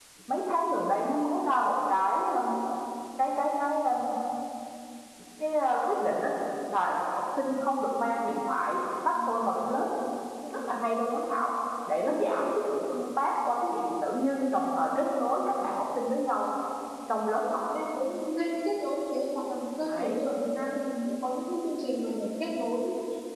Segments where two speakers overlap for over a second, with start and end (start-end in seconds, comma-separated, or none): none